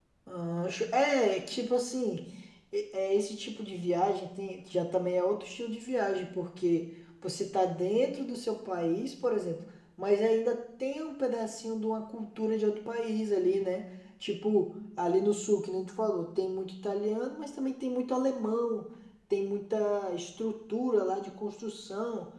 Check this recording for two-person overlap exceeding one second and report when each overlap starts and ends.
none

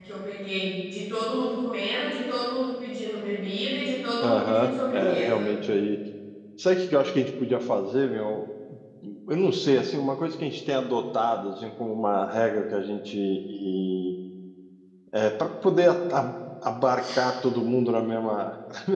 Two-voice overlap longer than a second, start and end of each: 4.2-5.5

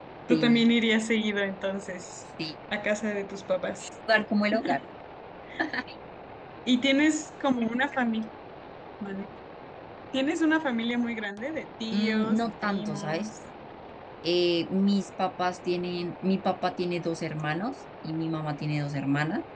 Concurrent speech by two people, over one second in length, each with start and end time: 11.9-13.3

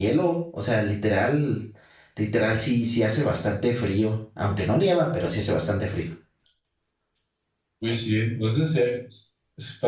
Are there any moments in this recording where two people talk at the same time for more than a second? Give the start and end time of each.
none

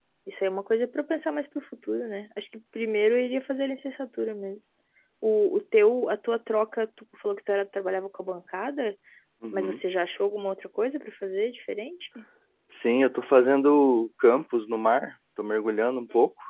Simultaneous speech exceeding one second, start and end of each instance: none

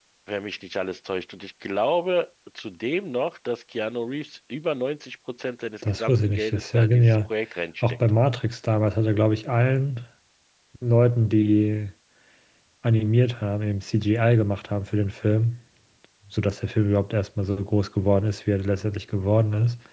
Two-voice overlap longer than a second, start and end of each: 5.8-7.3

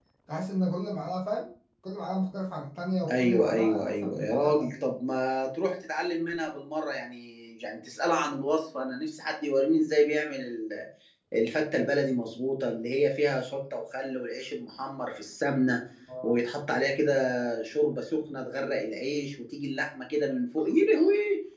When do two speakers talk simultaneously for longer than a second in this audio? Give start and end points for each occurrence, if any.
3.1-4.8

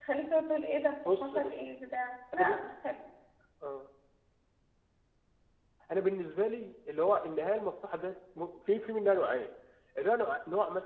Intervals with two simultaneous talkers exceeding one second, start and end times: none

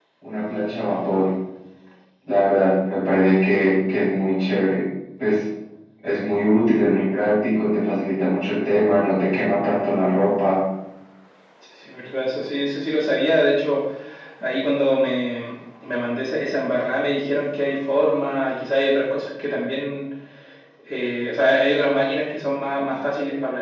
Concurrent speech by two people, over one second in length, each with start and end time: none

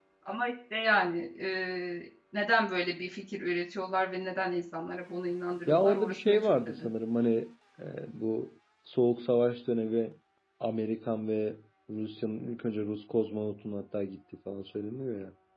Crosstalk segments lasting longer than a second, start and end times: 5.7-6.9

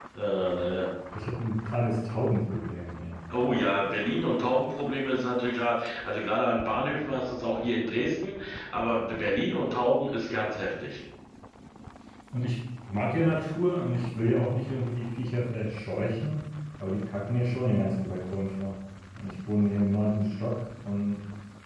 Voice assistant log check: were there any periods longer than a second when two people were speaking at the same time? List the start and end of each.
none

